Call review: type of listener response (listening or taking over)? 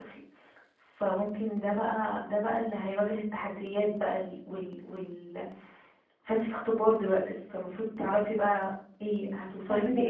taking over